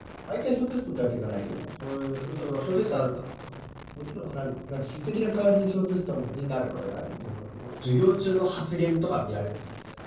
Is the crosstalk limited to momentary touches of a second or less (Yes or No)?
Yes